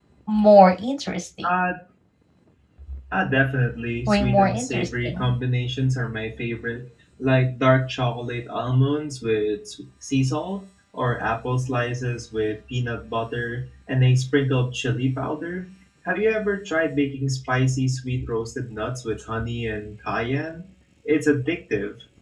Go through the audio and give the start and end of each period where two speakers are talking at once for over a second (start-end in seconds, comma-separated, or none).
4.1-5.3